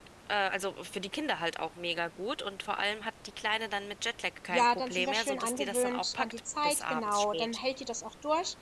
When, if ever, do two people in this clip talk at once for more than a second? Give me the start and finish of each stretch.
4.5-7.6

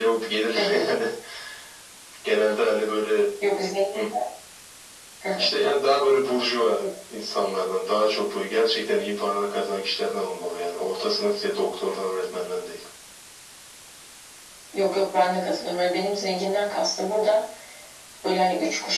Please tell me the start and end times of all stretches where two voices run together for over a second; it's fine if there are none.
none

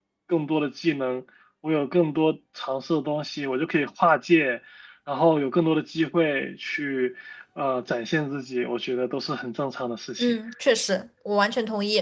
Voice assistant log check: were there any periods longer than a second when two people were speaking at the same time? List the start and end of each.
none

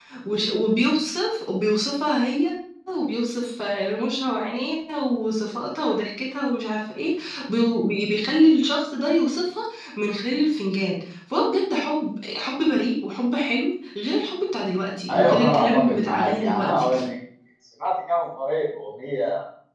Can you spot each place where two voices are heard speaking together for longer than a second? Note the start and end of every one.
15.1-16.9

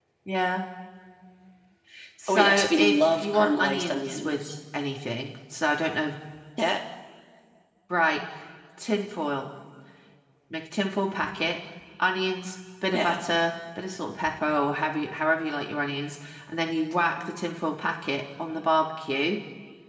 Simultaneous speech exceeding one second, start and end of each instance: 2.3-4.4

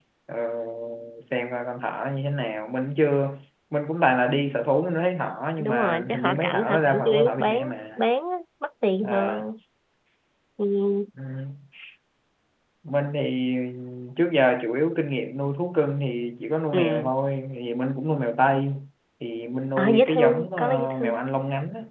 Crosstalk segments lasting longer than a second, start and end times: 5.6-7.6, 19.8-21.1

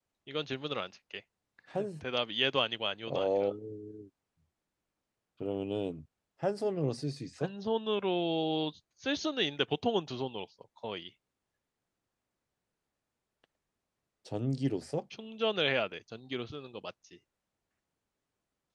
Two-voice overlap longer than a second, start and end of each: none

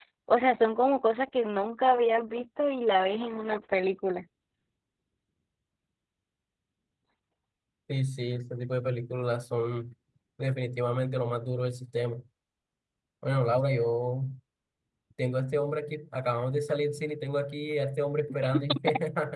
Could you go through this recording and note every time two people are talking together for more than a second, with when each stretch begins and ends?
none

